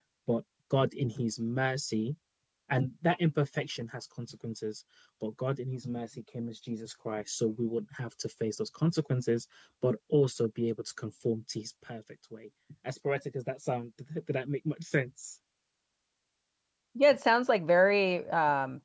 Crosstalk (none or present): none